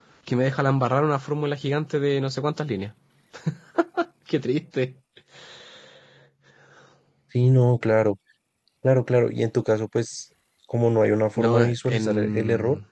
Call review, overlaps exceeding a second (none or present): present